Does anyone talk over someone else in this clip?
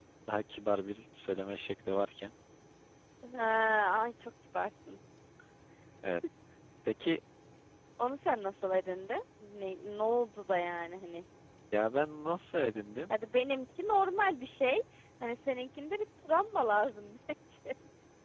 No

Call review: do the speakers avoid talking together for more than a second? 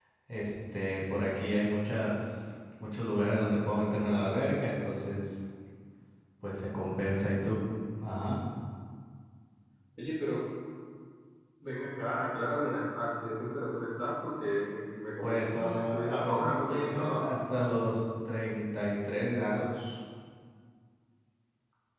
No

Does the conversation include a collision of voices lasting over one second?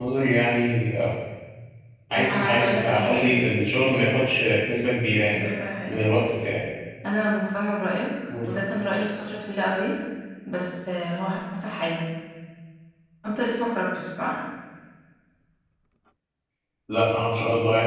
Yes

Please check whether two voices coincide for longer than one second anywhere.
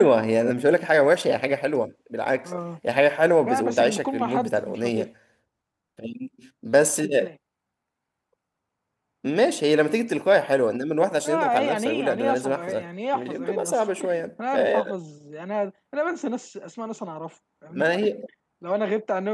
Yes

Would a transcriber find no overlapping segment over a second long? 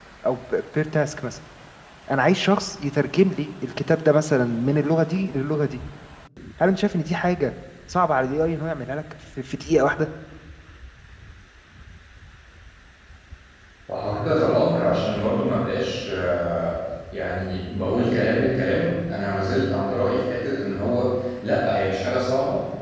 Yes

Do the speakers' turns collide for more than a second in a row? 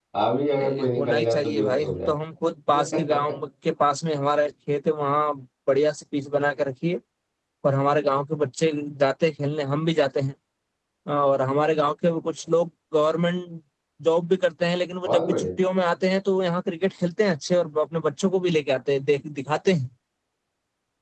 Yes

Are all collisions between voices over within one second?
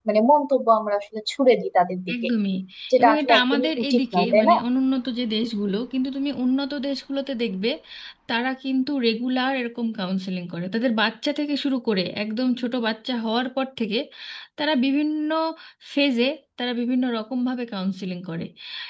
No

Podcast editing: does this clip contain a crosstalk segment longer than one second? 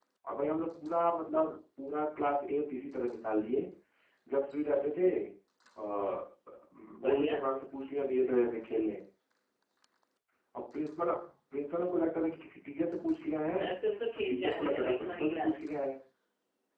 Yes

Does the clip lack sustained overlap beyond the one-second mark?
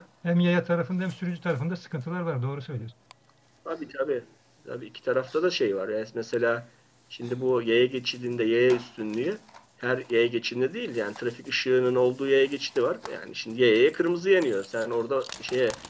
Yes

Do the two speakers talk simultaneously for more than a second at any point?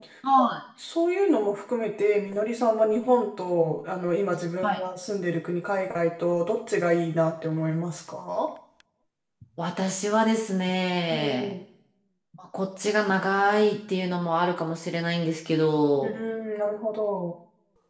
No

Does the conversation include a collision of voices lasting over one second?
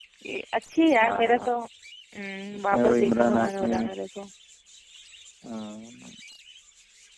Yes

